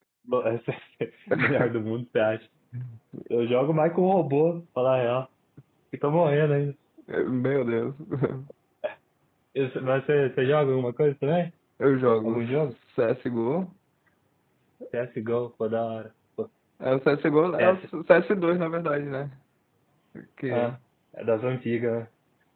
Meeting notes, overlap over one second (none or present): none